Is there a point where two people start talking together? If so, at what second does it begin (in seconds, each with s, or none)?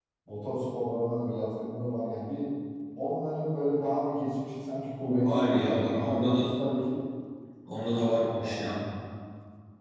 5.2 s